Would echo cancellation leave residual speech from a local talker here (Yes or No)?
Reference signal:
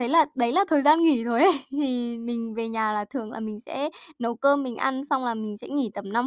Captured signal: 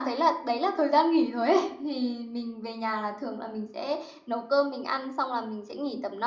No